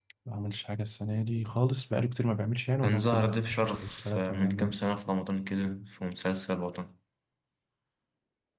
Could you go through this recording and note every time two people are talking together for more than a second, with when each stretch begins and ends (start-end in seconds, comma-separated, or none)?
2.8-4.7